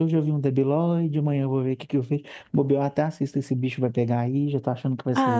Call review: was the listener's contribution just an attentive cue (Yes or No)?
No